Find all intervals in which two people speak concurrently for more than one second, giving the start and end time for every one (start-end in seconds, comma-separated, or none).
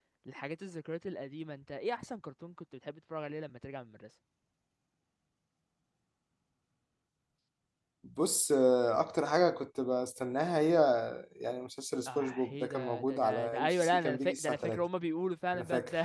12.1-14.9